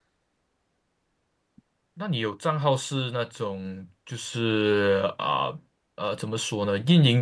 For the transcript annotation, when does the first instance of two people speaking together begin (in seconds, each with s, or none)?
none